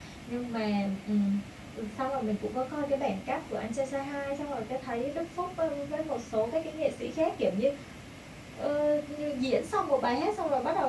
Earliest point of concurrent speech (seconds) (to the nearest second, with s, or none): none